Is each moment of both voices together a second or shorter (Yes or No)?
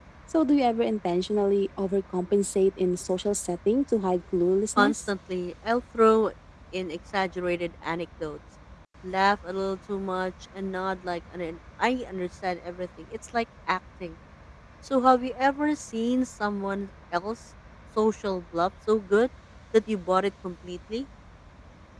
Yes